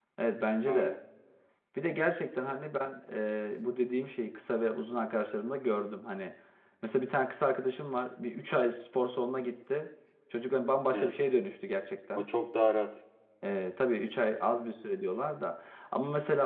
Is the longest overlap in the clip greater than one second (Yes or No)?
No